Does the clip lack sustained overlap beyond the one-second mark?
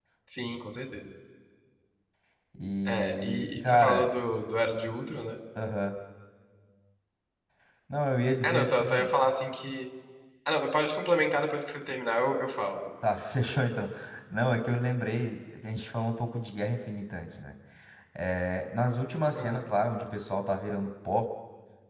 No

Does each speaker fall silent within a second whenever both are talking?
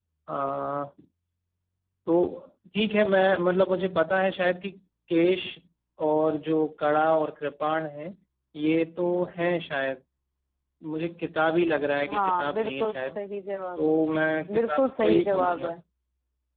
No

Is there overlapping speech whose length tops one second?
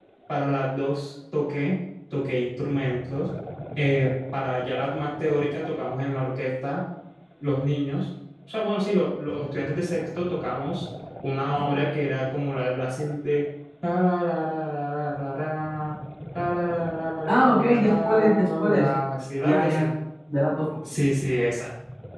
Yes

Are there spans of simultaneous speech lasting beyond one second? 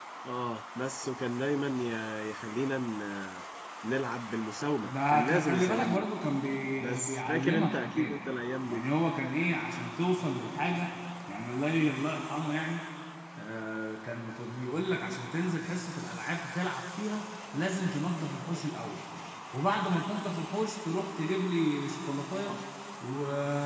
Yes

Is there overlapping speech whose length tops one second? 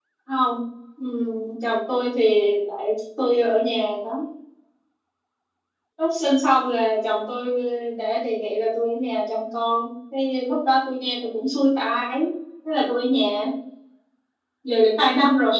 No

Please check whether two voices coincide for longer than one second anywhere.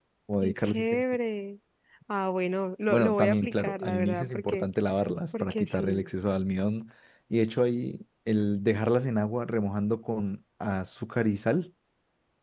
Yes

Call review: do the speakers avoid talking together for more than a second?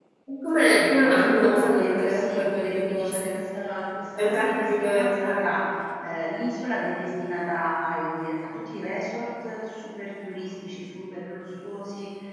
No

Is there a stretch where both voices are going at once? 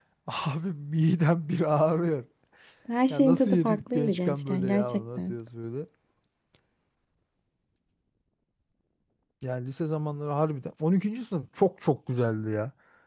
Yes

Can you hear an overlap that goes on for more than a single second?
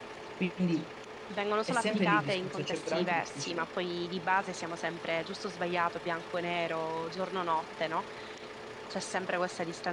Yes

